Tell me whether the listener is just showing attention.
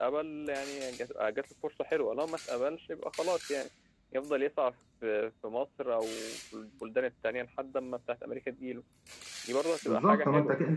No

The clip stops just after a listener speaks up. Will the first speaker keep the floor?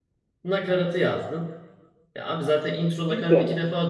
Yes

